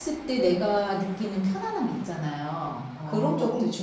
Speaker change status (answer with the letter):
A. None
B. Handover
B